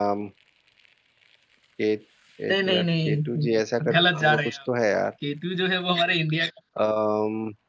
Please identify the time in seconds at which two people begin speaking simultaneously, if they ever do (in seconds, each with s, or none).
2.5 s